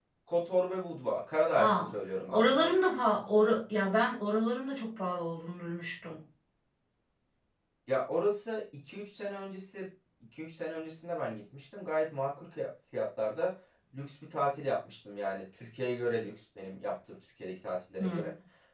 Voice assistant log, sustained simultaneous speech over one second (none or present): none